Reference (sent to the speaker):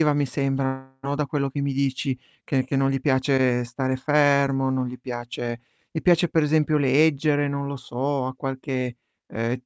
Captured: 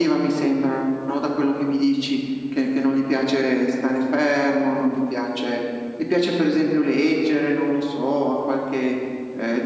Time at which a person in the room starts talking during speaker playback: none

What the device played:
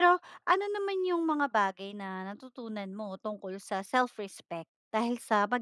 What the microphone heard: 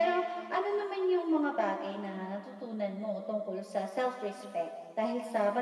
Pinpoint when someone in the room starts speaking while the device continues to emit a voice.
none

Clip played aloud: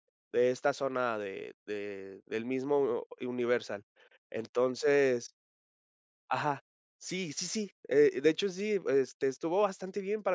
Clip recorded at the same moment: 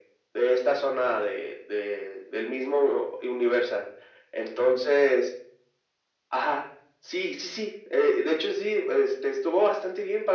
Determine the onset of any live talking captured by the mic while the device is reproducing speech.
none

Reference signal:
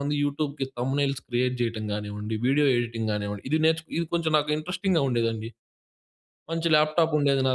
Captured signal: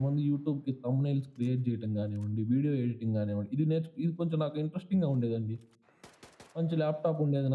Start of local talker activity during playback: none

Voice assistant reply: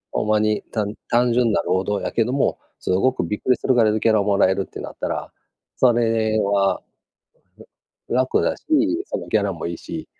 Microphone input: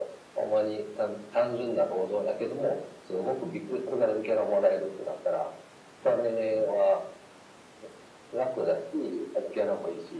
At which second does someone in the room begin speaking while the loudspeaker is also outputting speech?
none

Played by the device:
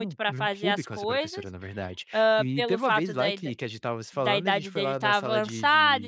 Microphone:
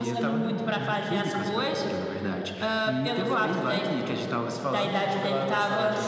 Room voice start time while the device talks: none

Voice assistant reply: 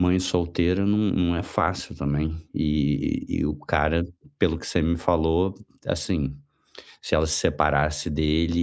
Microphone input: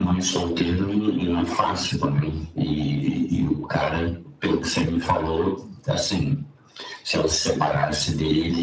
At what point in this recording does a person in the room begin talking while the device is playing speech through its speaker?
none

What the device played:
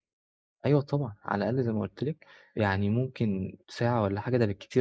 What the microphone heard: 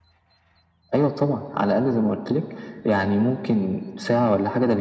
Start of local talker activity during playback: none

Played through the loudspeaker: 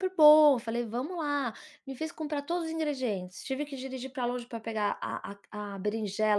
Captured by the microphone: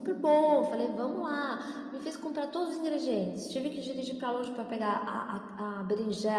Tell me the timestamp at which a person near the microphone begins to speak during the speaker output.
none

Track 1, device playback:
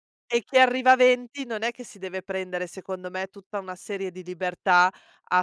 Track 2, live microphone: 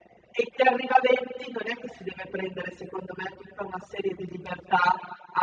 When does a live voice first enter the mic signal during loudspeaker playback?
none

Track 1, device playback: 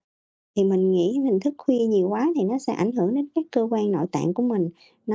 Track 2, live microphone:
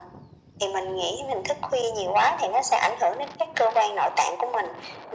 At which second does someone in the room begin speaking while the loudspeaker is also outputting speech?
none

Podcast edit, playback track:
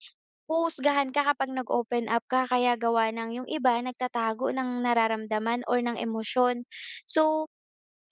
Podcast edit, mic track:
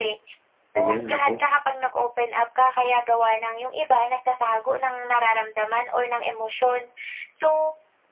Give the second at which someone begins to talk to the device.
0.8 s

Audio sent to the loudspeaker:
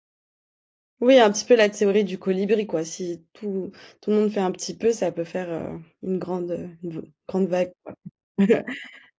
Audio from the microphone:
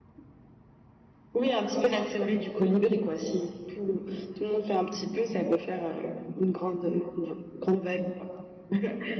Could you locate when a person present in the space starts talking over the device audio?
none

